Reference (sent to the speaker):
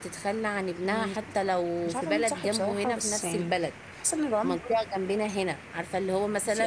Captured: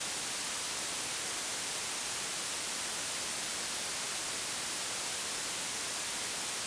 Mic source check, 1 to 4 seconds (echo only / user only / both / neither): neither